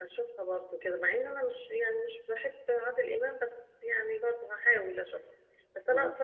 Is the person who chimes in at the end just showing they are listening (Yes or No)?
Yes